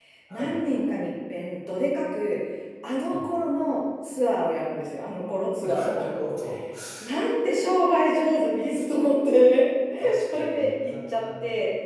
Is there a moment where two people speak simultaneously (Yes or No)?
Yes